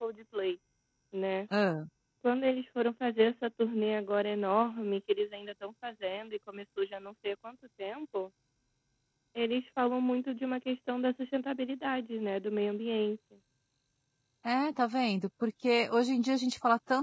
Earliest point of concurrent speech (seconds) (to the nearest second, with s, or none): none